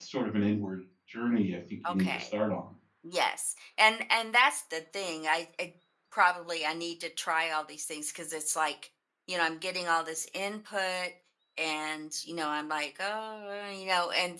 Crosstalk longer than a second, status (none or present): none